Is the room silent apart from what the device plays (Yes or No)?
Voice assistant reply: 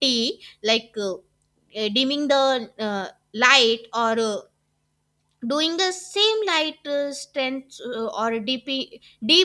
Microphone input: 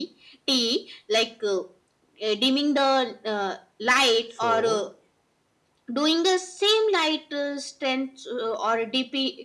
No